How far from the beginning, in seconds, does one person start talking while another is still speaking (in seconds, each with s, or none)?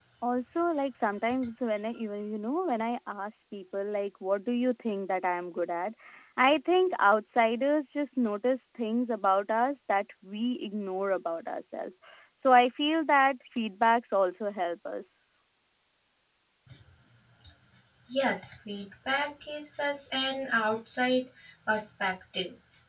none